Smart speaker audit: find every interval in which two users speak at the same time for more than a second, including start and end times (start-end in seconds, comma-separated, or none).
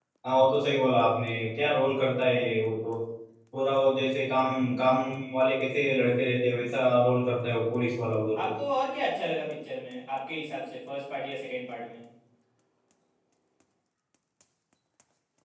none